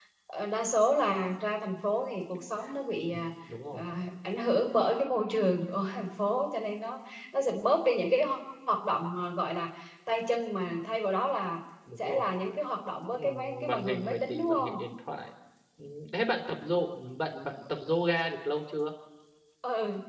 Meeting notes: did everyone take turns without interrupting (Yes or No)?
No